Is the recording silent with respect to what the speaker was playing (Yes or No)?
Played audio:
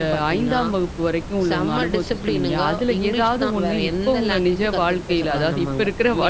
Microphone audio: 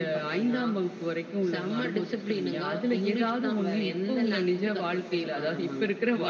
No